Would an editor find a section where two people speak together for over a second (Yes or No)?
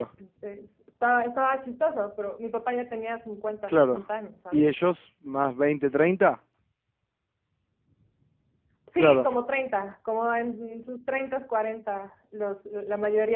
No